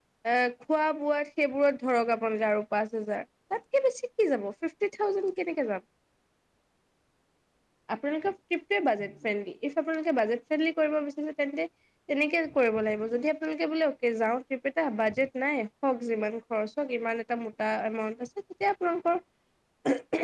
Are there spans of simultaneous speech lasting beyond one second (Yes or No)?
No